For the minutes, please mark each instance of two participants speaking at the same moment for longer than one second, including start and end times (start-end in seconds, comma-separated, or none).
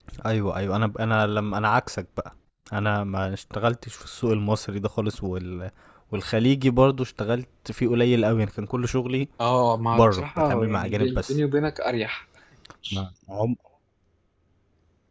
9.9-11.3